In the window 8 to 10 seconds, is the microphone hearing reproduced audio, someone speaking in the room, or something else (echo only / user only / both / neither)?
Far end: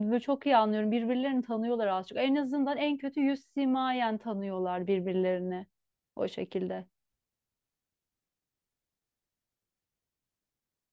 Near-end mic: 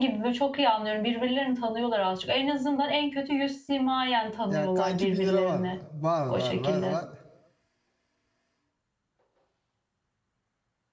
neither